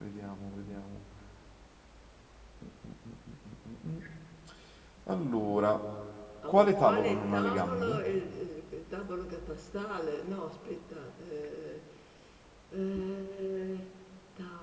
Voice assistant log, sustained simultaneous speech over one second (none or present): present